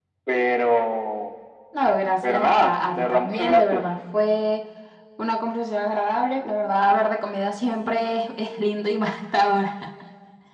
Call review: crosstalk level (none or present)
present